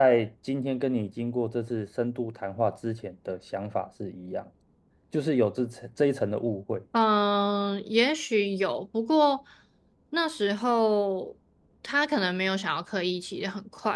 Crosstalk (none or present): none